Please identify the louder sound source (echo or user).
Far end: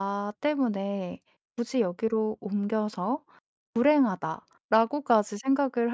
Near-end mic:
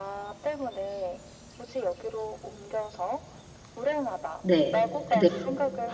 user